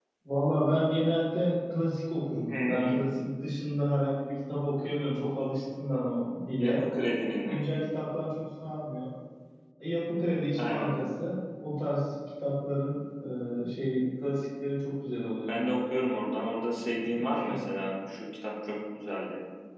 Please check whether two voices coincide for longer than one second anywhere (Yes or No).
No